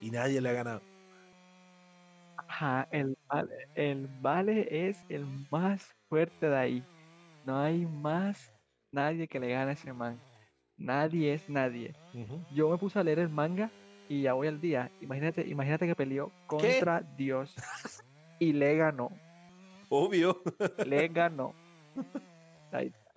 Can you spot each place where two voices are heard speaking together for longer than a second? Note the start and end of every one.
none

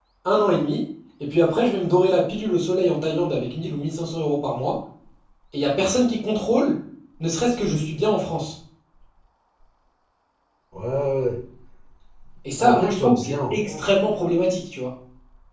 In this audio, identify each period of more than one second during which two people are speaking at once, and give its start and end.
12.6-13.8

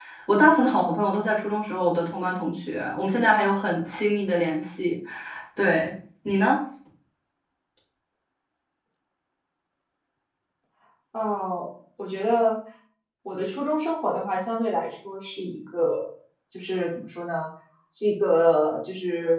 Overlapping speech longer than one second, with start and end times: none

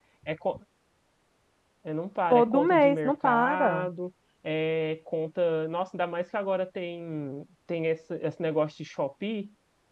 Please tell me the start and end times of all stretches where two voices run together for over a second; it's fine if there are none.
2.3-3.9

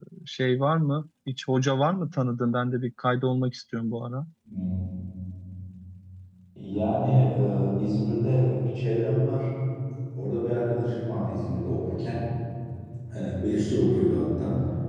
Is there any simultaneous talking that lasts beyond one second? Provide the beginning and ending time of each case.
none

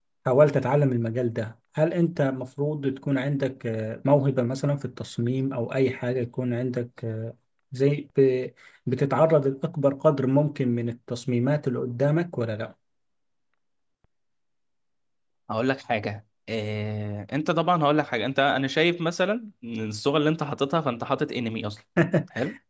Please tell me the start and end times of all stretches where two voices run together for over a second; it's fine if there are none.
none

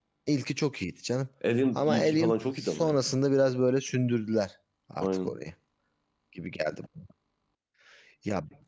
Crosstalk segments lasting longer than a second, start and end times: 1.8-3.0

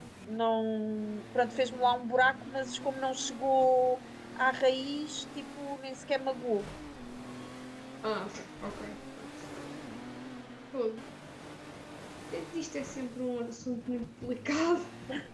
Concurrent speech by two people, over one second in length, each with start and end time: none

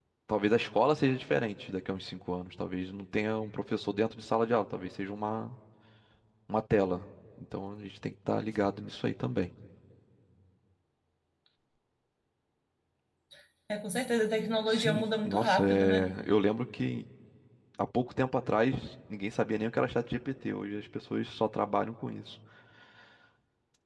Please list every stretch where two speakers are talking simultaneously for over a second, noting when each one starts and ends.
14.7-16.1

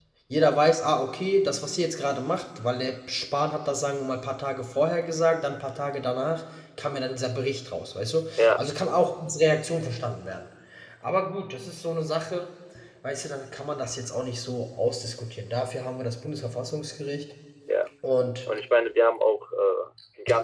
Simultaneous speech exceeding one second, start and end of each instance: none

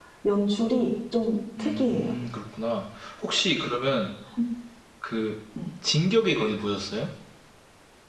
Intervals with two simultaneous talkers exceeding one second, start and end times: none

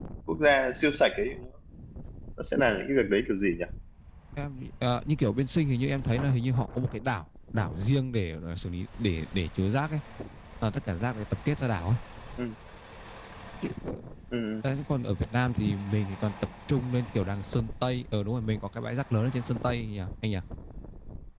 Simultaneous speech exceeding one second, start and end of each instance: none

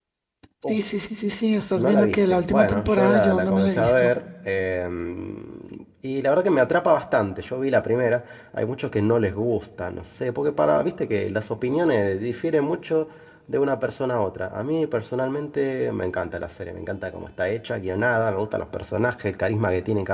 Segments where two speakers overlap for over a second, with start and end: 1.8-4.1

